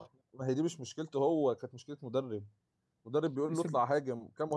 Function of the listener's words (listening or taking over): listening